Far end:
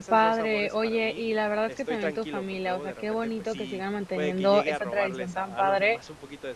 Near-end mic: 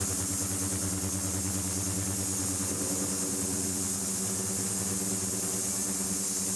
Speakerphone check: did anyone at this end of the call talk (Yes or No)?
No